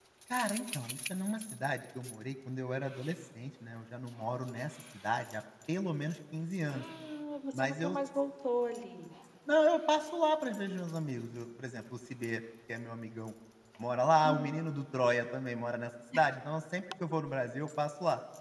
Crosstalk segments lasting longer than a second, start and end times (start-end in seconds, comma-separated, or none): none